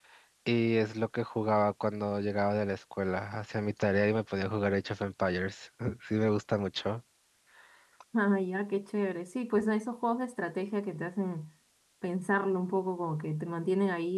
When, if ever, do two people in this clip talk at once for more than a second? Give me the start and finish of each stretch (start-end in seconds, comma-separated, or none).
none